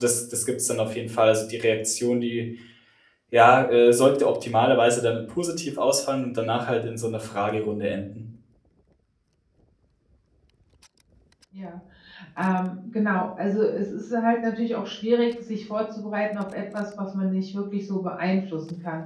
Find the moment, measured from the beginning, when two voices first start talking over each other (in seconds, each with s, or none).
none